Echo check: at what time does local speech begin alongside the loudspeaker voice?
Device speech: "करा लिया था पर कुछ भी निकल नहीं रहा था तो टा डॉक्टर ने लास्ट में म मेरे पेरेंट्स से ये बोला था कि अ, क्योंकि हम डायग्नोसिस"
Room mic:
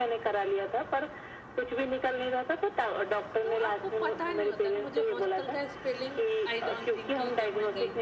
3 s

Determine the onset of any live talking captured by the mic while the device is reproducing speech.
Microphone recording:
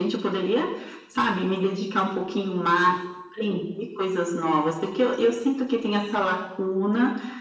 none

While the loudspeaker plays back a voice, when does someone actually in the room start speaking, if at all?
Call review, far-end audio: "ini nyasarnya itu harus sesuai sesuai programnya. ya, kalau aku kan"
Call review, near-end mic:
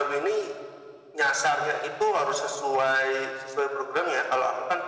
none

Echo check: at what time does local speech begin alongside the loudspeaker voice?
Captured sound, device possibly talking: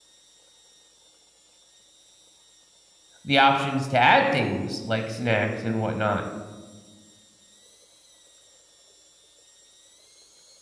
3 s

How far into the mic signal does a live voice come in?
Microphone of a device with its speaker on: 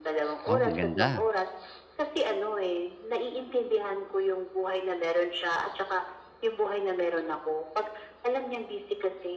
0 s

